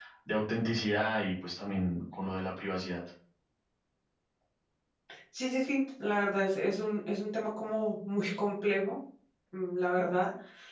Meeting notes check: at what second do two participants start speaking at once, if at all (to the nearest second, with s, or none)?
none